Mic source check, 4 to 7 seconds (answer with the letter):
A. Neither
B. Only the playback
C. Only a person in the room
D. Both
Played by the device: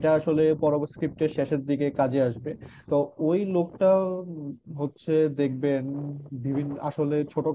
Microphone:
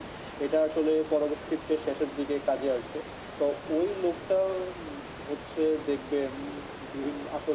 B